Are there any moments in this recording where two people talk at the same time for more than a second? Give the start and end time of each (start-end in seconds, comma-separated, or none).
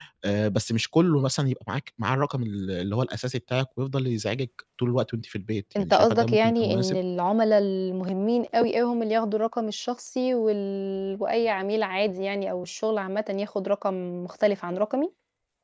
5.8-7.0